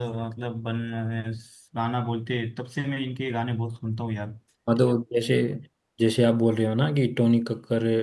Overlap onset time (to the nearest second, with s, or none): none